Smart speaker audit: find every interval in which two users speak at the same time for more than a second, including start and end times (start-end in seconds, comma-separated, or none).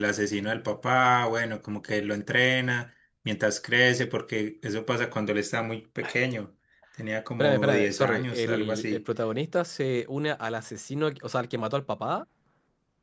7.4-9.0